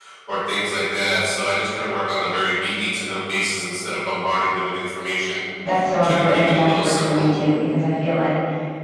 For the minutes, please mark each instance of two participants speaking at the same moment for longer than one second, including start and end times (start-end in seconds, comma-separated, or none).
6.0-7.3